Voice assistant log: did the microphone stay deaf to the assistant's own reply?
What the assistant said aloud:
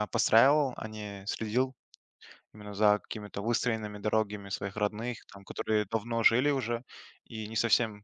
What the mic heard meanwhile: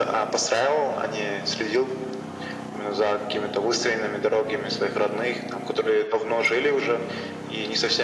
No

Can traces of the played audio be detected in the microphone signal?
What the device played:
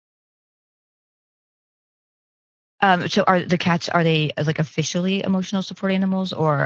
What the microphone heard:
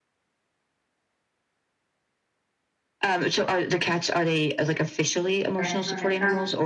Yes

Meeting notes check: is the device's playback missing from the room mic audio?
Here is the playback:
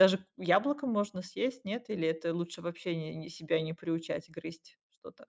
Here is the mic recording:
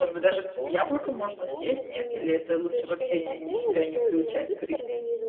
No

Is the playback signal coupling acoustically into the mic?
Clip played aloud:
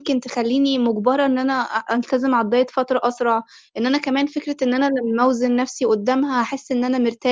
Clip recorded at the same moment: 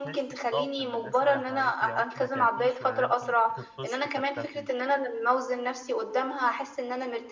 Yes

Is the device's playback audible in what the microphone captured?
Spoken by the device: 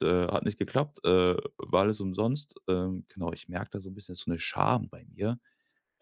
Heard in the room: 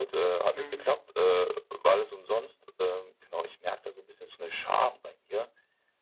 Yes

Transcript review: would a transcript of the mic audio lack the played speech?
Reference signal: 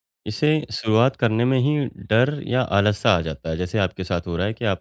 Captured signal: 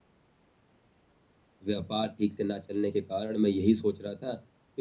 Yes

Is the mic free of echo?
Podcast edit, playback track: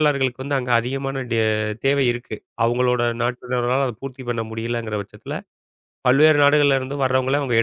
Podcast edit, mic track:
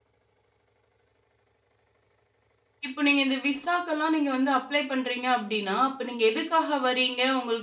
Yes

